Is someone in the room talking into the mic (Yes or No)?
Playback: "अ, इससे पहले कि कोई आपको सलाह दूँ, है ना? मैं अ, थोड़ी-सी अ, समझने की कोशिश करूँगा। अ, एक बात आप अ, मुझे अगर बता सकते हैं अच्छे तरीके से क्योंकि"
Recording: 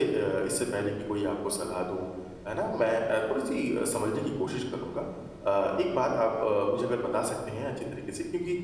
No